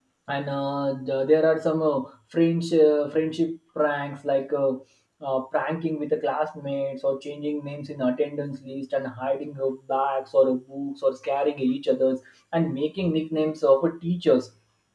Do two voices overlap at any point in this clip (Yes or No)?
No